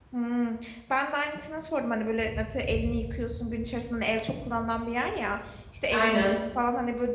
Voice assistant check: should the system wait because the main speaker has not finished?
Yes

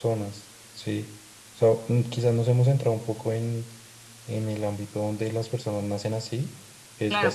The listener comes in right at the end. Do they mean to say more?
Yes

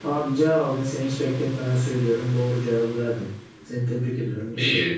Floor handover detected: Yes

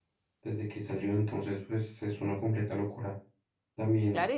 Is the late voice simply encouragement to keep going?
No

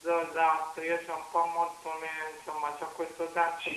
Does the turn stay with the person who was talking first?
Yes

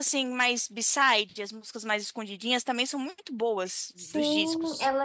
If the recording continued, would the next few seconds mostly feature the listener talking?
Yes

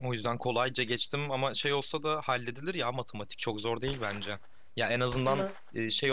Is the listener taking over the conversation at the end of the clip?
No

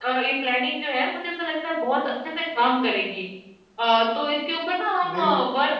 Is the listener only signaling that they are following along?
Yes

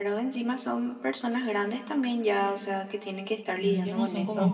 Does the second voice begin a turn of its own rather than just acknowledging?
Yes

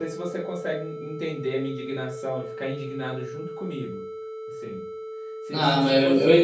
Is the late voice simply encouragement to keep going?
No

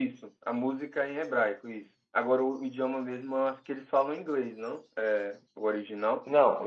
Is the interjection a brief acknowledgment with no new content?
No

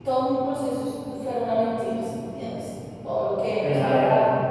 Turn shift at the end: No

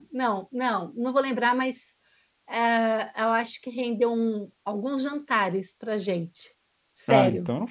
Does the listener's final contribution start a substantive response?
Yes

